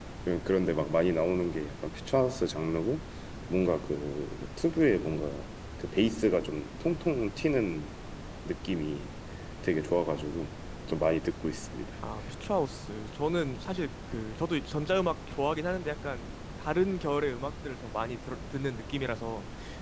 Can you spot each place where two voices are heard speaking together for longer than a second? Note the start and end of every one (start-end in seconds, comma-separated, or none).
none